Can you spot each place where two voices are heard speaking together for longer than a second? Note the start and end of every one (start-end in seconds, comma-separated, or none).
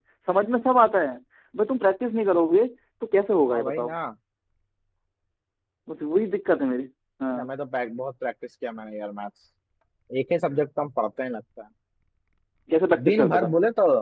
none